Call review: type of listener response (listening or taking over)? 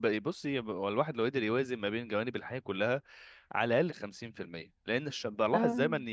listening